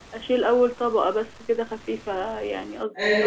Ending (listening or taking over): taking over